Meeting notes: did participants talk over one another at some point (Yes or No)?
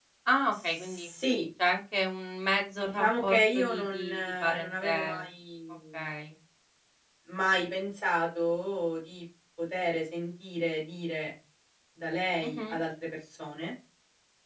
Yes